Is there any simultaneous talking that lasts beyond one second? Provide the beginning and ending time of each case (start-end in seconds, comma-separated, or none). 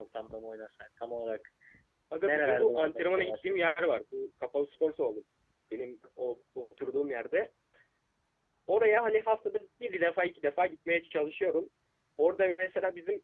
2.2-3.5